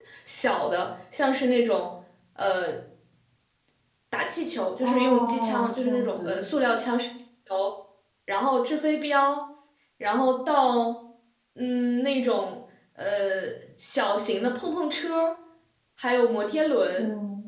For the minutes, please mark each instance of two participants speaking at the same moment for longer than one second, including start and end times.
4.8-6.4

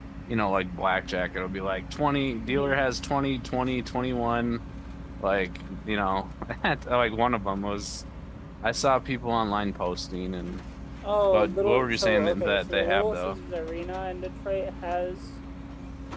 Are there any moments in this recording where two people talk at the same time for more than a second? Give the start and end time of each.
11.2-13.4

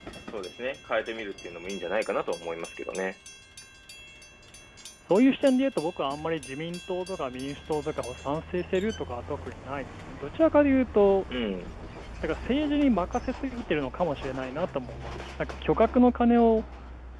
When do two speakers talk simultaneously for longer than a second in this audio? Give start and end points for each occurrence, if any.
none

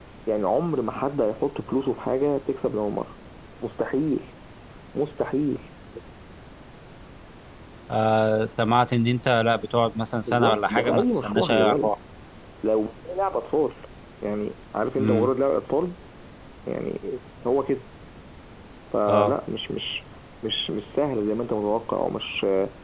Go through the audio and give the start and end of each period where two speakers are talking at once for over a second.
10.2-11.9

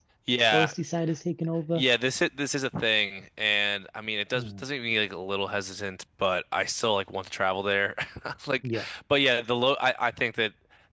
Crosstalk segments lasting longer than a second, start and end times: none

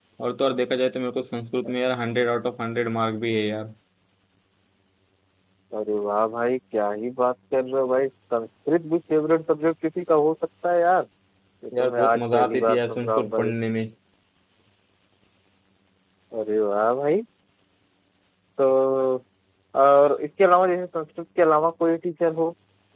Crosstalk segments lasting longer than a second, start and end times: 11.8-13.6

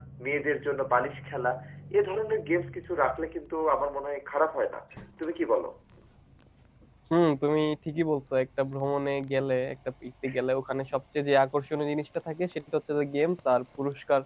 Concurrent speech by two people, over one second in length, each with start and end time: none

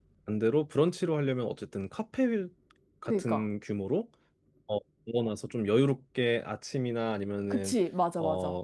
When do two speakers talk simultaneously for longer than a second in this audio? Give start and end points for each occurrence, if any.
none

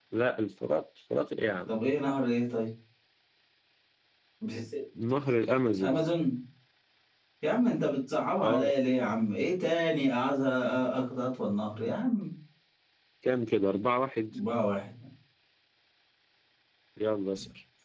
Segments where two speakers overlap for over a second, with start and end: none

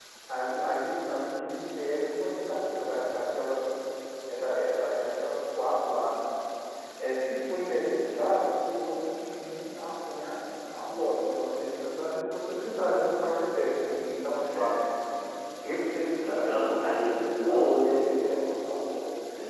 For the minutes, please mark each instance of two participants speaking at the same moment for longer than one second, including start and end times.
16.2-17.9

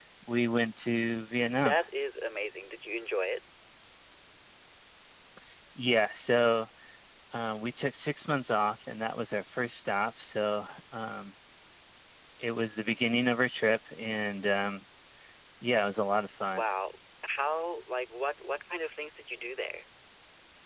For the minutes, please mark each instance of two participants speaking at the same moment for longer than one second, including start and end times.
none

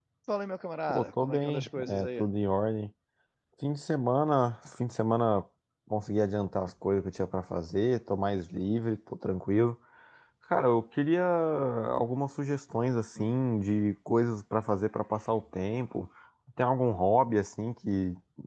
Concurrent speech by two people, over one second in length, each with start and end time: 0.9-2.2

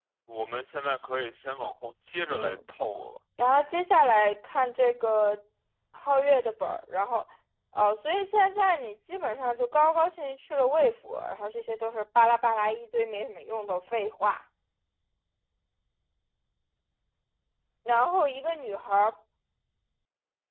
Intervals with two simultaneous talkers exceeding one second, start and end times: none

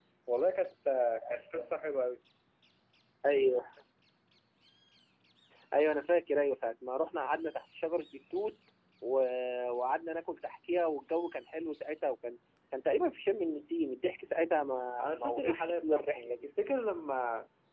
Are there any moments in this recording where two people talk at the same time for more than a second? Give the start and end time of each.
15.0-16.4

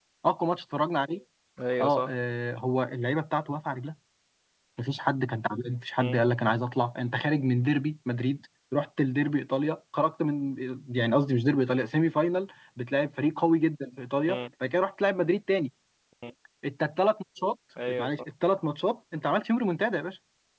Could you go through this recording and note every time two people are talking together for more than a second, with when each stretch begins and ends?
none

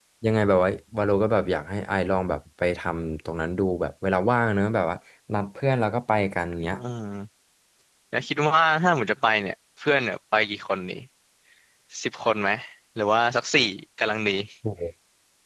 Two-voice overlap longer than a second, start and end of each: none

